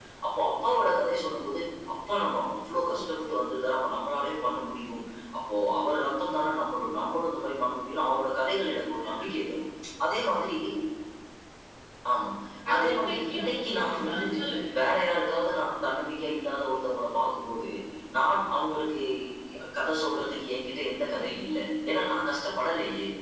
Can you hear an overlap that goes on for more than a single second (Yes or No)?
Yes